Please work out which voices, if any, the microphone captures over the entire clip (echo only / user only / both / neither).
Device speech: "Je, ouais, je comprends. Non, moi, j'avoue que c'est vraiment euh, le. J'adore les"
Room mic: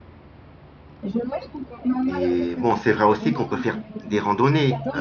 both